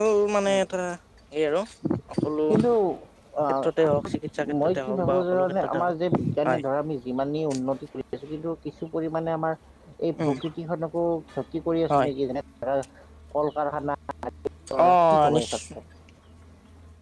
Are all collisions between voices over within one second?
No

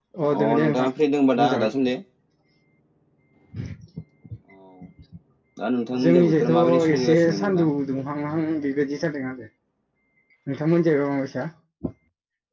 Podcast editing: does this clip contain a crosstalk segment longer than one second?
Yes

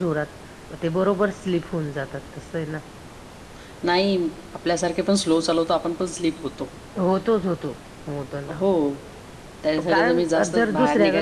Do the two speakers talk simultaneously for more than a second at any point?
Yes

